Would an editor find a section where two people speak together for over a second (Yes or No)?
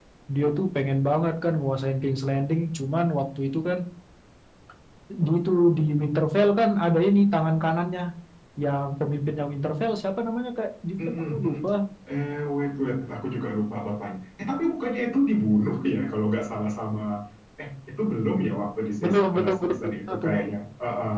Yes